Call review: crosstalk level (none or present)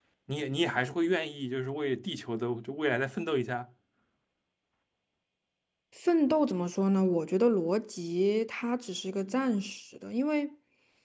none